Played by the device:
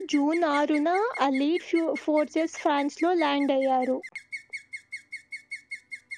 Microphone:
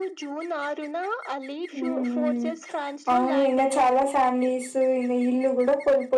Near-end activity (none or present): present